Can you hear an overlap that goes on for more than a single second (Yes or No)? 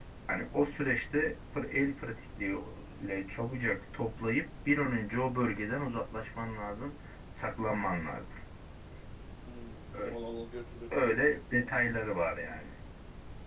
Yes